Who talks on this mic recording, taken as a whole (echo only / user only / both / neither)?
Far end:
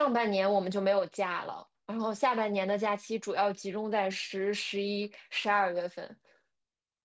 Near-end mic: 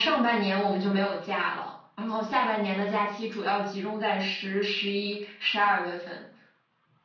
echo only